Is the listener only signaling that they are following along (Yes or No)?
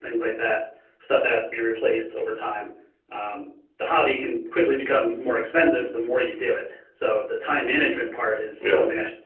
Yes